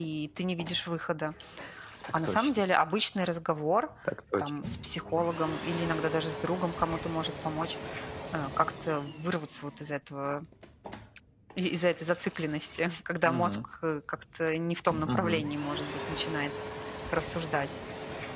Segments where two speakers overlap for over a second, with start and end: none

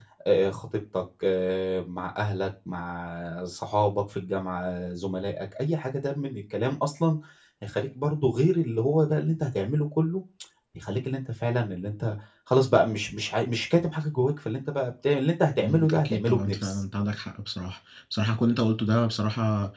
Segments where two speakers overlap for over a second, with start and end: 15.6-16.8

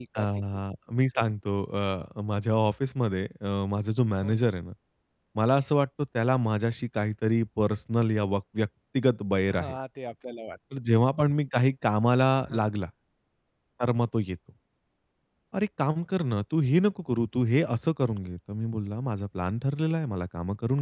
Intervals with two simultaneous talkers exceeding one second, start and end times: none

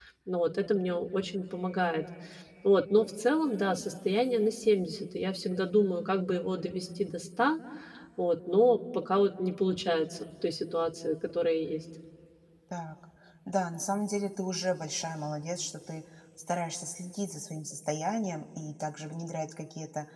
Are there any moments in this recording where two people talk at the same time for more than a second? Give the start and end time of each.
none

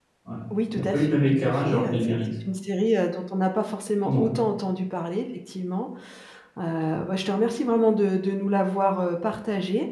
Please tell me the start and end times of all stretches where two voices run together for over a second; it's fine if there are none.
0.7-2.2

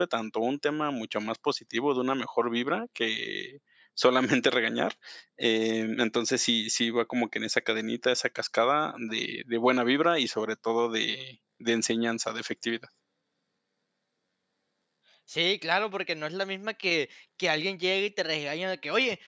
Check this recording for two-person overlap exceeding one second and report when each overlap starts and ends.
none

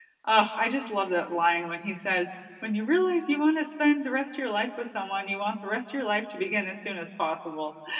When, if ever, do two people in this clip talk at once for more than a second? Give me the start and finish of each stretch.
none

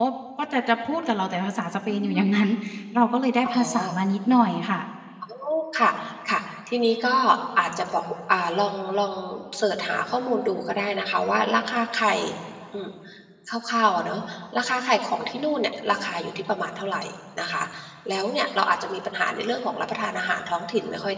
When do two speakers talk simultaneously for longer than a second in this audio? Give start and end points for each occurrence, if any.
none

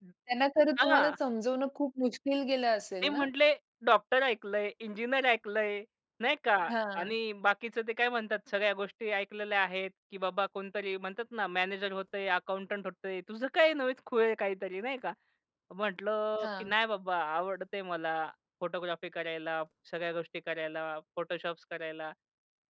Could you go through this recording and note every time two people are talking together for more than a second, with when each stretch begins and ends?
none

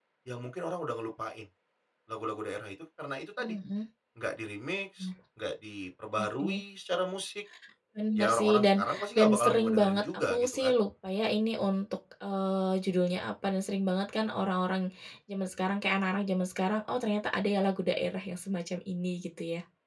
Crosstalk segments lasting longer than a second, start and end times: 8.2-10.7

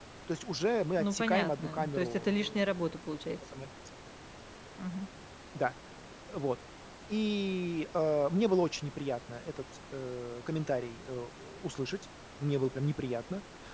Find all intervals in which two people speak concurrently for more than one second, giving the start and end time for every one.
1.0-2.6

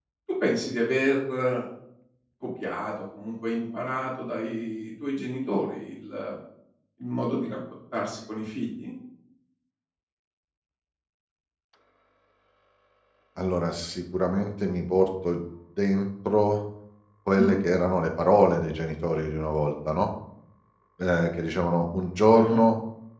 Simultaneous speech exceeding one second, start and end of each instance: none

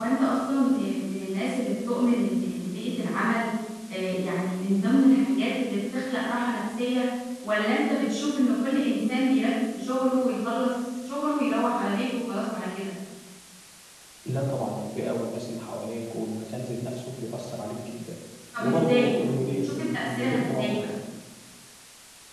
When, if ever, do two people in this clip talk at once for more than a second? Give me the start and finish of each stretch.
18.6-20.9

